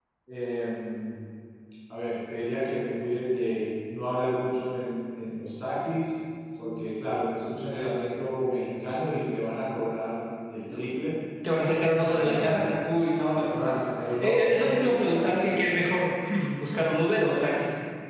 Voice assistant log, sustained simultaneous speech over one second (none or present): present